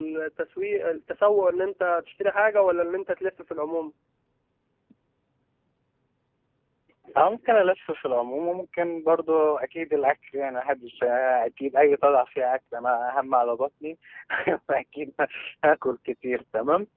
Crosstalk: none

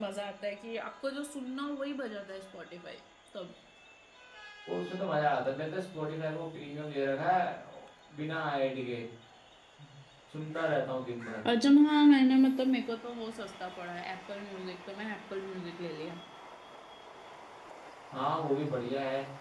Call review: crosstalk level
none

